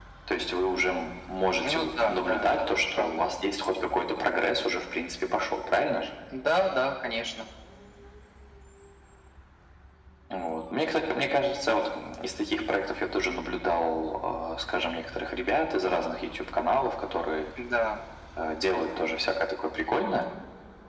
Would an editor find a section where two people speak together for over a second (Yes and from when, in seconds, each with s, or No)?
Yes, from 1.6 s